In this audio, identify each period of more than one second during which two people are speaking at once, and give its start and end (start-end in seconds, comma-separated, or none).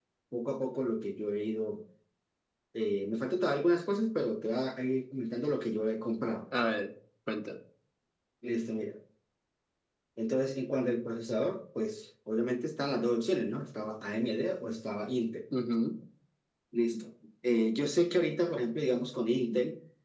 none